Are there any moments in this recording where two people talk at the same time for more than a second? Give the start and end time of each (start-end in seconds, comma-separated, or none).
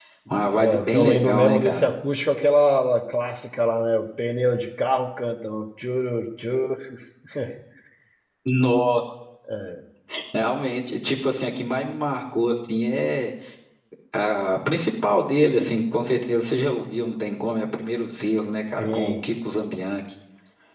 0.6-1.9